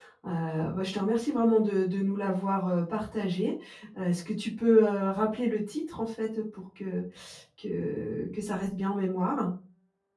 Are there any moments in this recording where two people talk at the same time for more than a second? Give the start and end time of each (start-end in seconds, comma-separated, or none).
none